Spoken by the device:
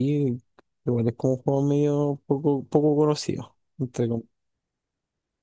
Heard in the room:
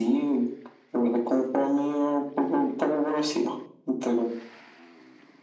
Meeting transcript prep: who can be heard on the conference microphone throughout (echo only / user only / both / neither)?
echo only